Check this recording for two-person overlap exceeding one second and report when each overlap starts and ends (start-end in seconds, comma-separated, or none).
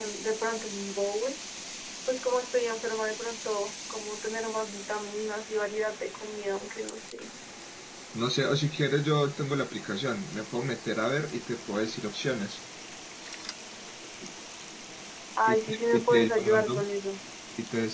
15.5-16.8